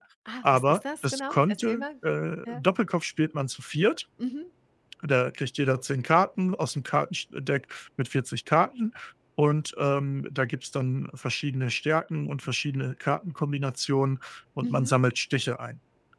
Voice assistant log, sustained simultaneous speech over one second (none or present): present